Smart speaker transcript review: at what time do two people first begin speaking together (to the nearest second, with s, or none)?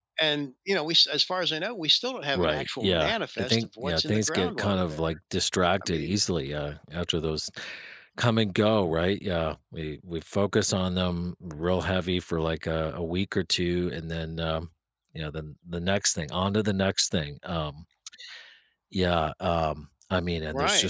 2 s